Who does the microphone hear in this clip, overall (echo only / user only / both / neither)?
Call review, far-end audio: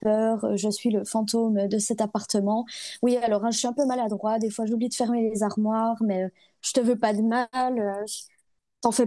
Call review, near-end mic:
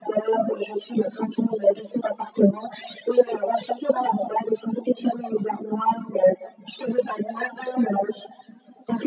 echo only